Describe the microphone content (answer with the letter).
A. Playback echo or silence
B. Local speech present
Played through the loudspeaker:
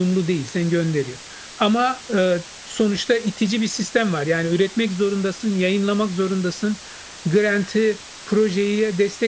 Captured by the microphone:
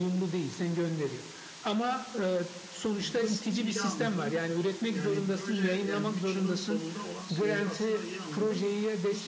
B